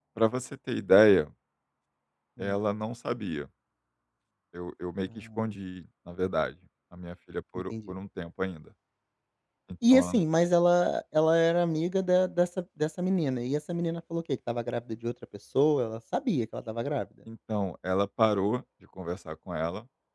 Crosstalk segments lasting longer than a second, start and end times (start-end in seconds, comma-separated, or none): none